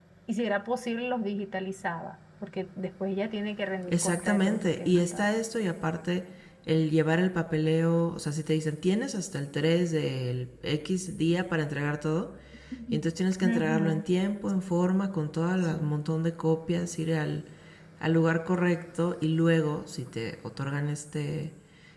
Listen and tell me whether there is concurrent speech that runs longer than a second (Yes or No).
Yes